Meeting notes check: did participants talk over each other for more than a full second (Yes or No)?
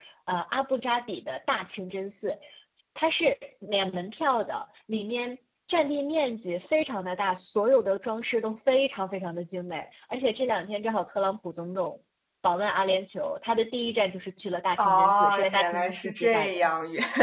Yes